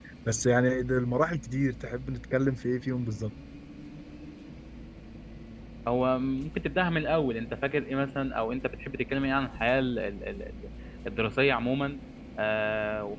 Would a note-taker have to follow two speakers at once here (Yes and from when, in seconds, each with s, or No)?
No